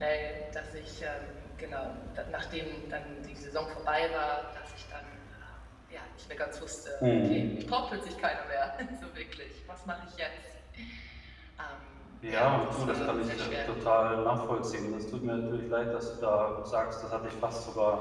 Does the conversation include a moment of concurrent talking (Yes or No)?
Yes